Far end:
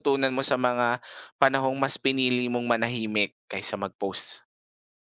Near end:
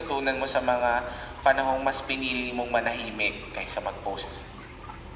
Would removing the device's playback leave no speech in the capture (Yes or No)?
Yes